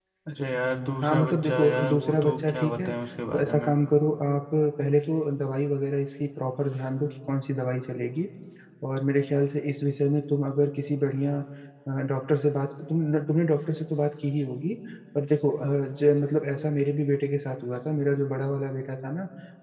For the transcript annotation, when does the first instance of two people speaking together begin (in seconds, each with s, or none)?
1.0 s